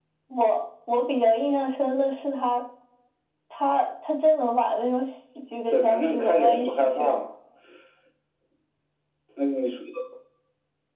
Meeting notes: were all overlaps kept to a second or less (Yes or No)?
No